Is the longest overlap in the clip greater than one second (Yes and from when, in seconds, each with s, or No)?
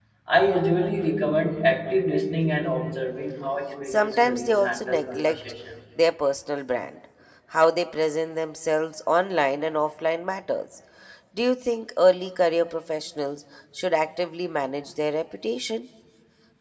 Yes, from 3.9 s